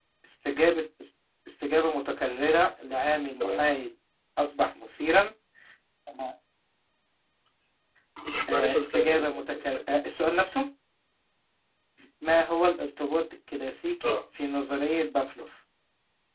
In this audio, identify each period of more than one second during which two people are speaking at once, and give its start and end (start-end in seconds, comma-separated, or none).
8.5-10.0